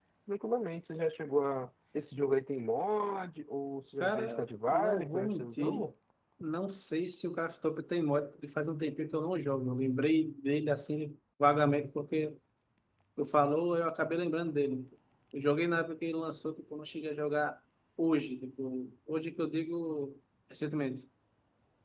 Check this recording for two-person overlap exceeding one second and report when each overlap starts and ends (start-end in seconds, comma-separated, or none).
4.0-5.9